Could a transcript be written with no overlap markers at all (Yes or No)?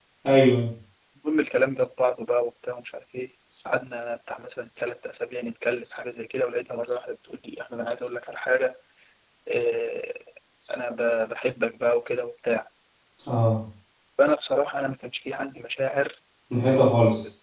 Yes